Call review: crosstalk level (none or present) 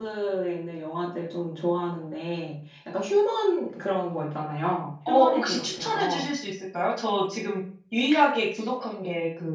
present